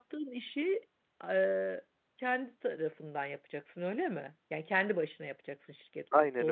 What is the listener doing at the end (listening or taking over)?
taking over